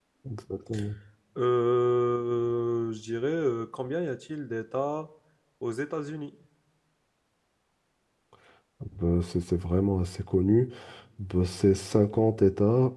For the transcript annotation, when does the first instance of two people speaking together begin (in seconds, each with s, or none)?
none